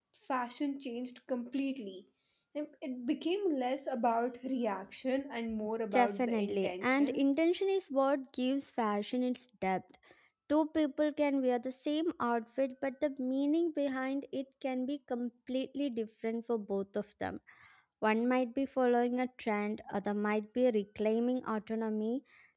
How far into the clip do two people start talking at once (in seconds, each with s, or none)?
5.9 s